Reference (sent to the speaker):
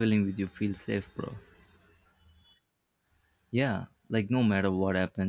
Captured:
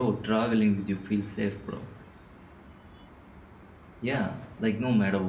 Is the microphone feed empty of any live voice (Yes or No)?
Yes